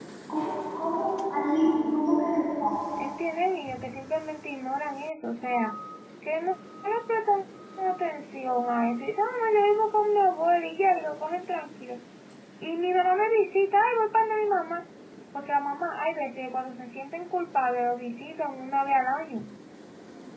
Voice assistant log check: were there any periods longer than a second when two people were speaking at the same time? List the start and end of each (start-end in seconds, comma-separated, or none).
none